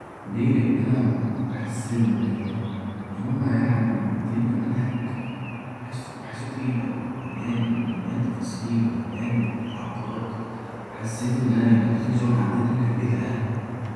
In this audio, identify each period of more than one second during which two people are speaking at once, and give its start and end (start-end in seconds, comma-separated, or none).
none